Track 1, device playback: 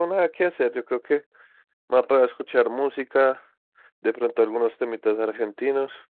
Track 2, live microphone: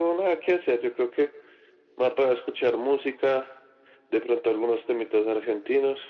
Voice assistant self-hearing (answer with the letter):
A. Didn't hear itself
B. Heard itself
B